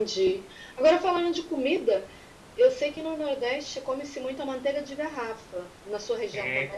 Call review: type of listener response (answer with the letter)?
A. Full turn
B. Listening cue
A